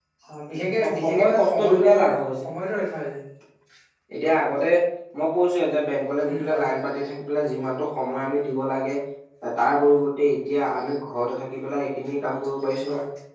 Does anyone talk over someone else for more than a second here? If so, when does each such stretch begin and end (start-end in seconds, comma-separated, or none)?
0.8-2.5